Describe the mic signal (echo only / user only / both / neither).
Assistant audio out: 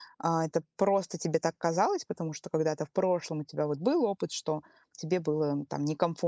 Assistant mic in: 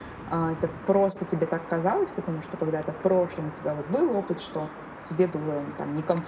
echo only